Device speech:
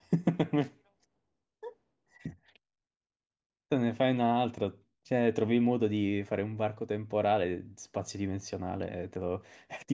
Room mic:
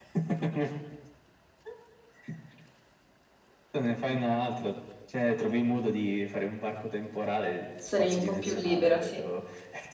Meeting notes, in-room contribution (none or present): present